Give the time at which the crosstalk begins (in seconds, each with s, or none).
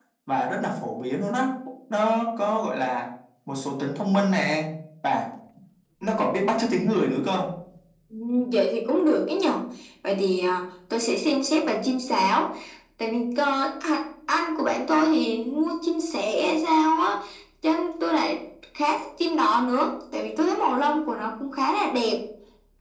none